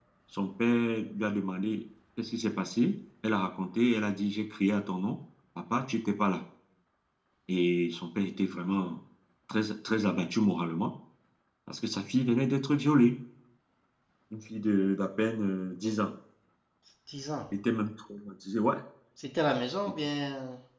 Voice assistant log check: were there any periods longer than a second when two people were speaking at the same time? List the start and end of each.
none

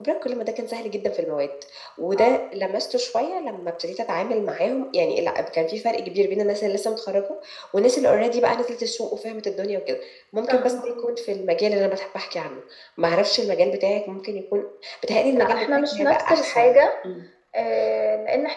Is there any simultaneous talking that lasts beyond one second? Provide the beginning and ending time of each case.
15.3-16.8

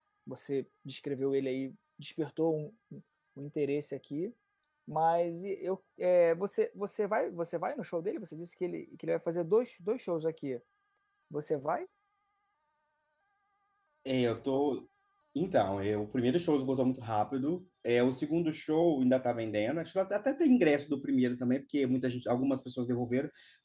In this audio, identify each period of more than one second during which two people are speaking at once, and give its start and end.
none

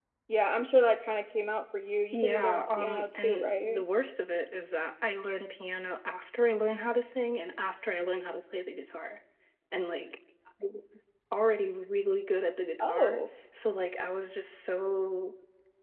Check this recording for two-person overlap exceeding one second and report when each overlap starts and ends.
2.1-3.8

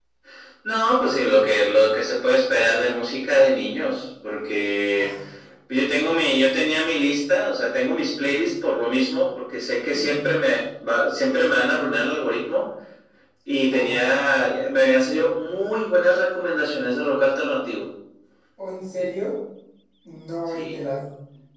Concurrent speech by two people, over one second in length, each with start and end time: none

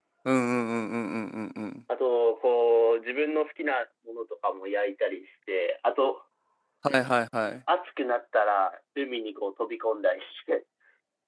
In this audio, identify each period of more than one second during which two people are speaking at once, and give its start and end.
none

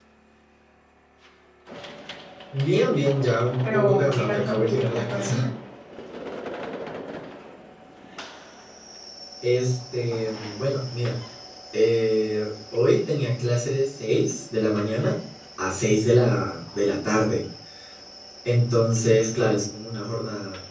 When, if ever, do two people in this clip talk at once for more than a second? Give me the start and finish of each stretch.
3.7-5.4

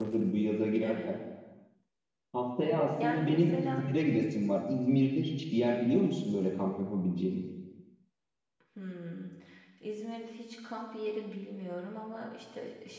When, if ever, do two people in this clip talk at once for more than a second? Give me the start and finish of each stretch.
2.6-3.8

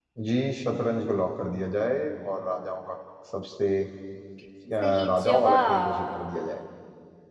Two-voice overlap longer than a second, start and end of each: 4.8-6.3

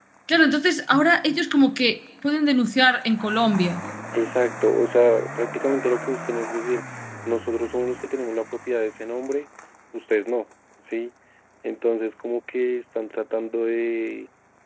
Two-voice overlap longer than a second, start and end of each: none

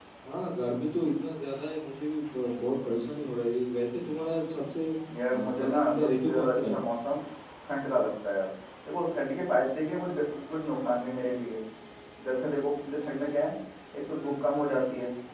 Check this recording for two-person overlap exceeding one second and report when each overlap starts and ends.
5.3-6.8

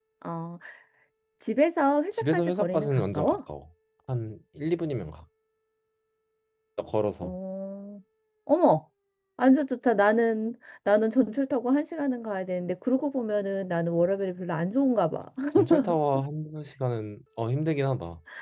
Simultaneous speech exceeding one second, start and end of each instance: 2.2-3.4

